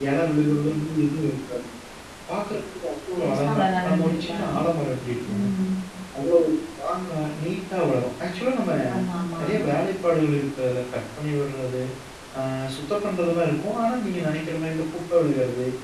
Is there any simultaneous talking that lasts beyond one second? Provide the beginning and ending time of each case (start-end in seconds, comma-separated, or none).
3.2-4.4